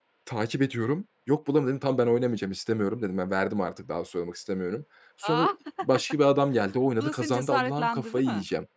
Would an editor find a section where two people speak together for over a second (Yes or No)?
Yes